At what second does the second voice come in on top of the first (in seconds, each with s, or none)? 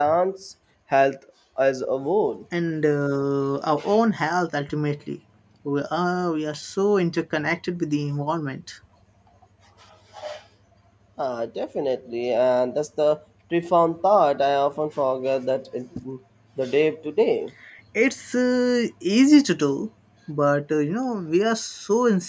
none